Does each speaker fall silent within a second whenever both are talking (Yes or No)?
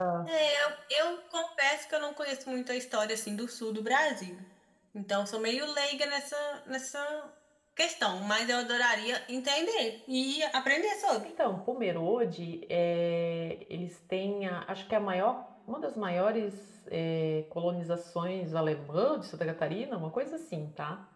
Yes